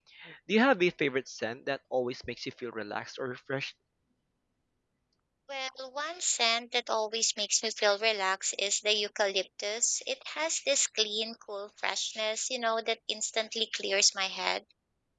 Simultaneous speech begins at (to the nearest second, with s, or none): none